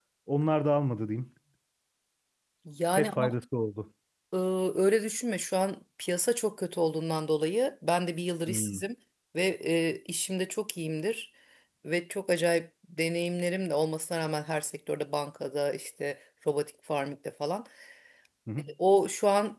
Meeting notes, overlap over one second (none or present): none